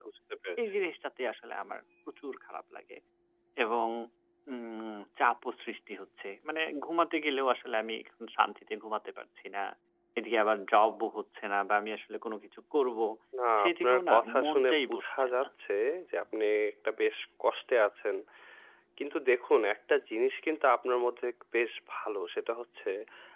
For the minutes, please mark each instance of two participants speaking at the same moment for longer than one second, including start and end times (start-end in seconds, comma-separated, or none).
13.6-15.5